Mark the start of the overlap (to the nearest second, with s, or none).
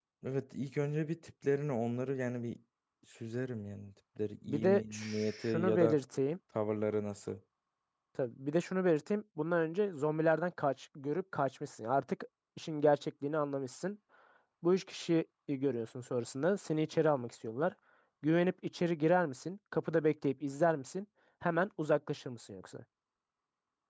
4 s